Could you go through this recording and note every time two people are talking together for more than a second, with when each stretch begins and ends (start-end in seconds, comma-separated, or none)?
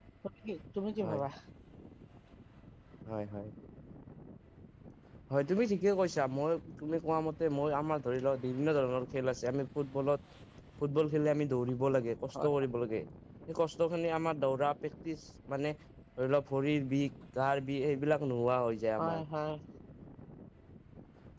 none